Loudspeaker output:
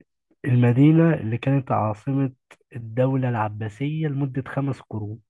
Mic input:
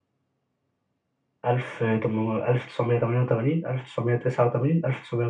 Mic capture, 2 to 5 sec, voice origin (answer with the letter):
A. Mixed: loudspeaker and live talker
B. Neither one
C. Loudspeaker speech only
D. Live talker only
D